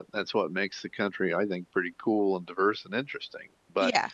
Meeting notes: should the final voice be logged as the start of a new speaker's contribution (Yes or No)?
No